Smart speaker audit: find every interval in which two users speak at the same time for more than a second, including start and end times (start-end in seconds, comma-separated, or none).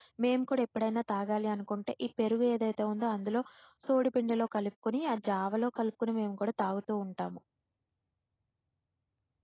none